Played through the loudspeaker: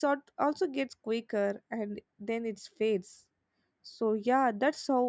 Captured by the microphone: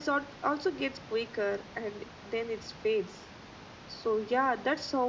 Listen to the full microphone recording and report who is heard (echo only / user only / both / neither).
echo only